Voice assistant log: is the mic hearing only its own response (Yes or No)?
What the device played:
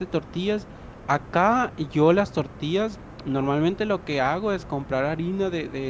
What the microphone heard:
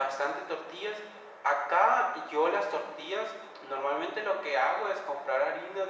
Yes